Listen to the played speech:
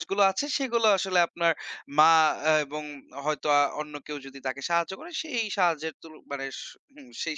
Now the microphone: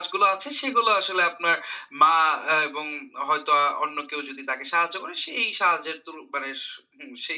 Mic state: echo only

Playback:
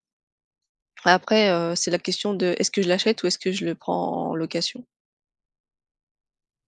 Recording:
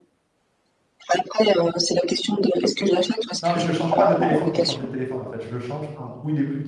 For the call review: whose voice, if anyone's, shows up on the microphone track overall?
both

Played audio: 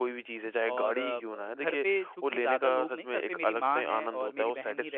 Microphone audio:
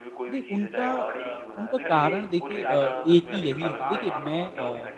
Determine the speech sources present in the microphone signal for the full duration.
both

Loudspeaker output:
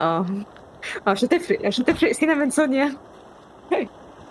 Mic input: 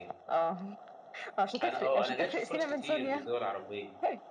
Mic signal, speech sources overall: both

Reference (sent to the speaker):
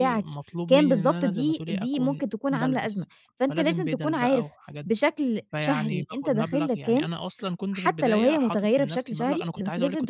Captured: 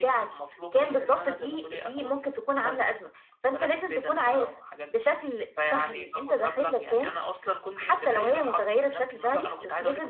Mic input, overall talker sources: echo only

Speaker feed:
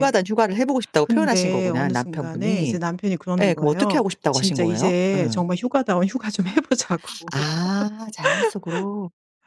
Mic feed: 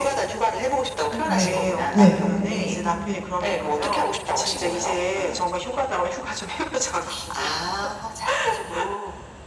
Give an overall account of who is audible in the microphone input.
both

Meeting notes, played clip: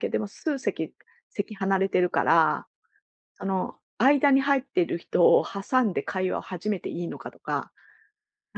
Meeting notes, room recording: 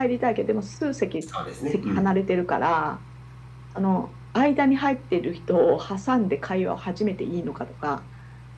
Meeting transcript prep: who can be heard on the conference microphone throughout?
both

